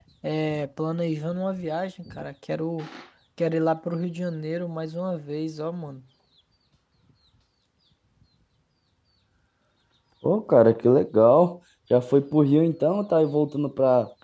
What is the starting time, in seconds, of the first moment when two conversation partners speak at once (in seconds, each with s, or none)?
none